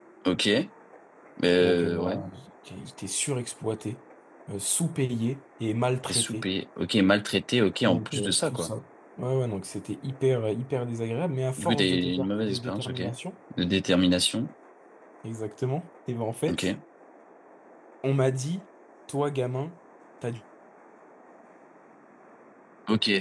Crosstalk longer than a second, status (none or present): present